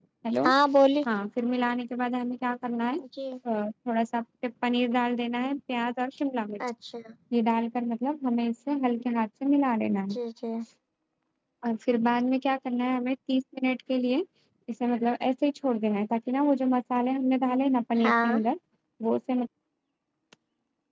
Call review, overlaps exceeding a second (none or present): none